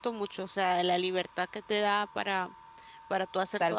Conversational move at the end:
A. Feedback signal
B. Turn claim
B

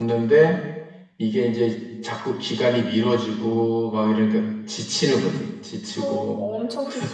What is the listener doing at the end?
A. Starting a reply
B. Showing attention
A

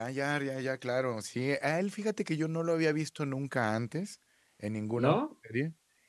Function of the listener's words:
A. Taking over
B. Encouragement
B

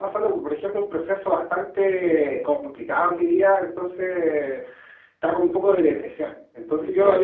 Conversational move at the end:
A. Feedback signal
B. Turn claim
A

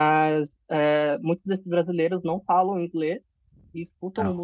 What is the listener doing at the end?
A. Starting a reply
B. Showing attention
B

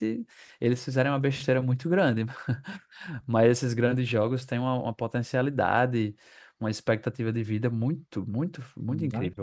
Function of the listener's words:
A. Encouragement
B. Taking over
B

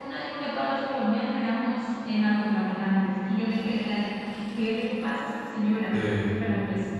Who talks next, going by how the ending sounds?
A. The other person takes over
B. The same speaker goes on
B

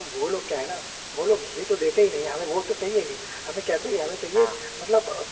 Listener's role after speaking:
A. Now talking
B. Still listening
B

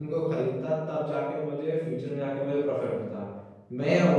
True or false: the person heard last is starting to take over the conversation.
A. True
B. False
B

